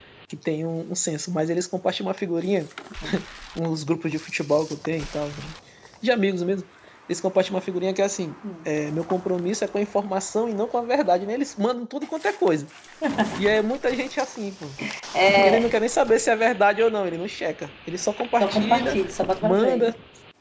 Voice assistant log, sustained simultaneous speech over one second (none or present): none